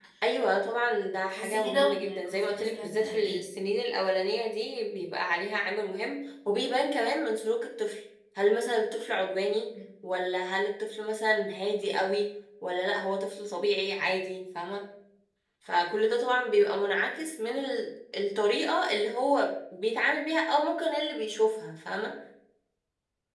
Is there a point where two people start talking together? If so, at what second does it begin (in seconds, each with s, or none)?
1.3 s